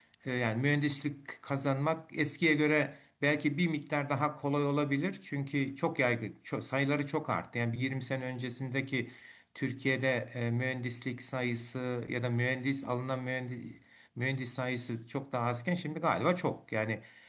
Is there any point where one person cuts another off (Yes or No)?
No